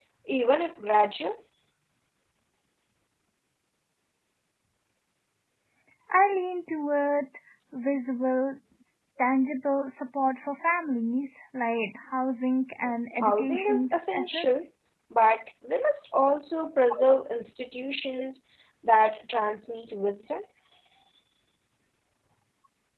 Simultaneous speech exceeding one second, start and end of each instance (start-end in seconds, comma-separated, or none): 13.2-14.7